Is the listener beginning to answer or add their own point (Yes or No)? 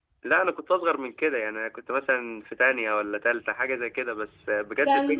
Yes